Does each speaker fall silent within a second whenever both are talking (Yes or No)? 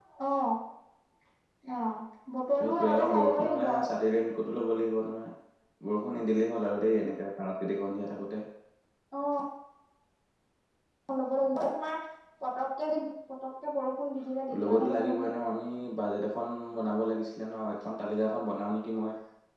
No